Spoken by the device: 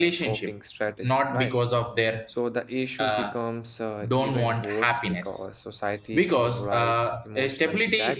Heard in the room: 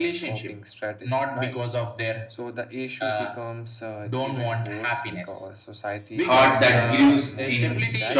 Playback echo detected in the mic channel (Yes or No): Yes